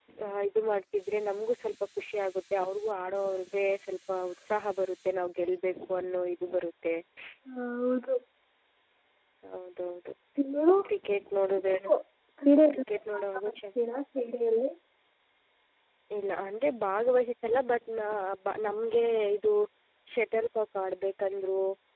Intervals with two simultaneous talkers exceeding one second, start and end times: none

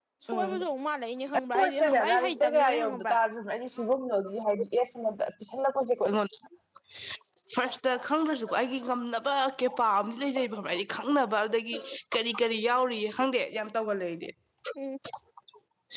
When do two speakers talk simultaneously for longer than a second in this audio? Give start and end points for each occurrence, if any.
1.5-3.1

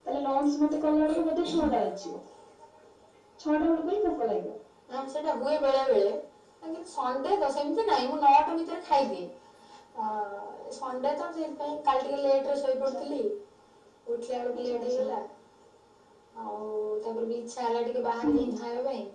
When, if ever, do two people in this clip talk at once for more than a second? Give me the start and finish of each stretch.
none

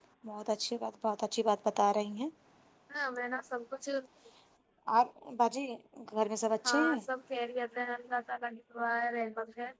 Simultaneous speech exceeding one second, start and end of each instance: none

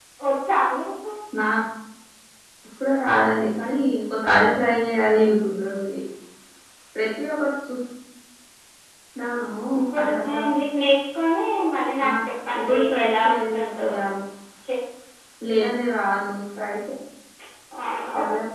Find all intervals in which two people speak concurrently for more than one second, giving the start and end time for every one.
12.6-13.9

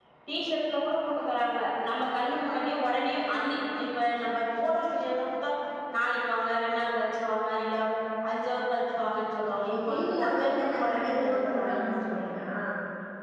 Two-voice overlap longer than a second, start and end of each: 9.7-12.3

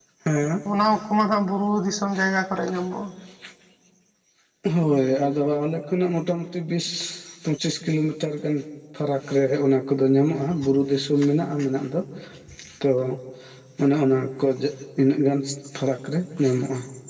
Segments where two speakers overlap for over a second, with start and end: none

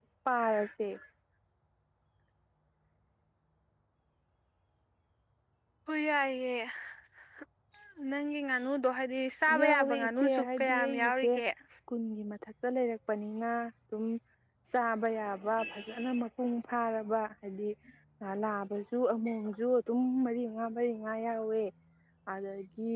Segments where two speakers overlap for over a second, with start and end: 9.6-11.3

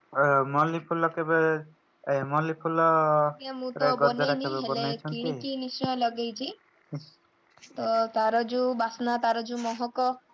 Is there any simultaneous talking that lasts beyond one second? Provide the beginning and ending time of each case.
3.9-5.3

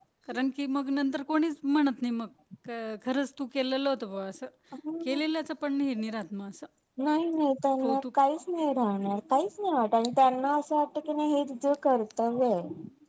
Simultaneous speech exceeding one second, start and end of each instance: none

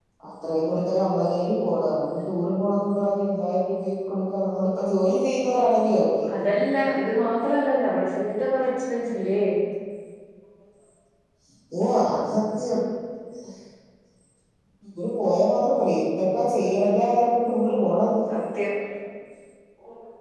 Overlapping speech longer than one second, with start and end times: none

